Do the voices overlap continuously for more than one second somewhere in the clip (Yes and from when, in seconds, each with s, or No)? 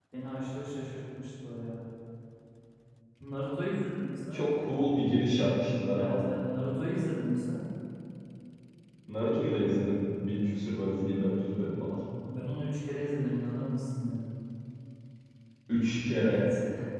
No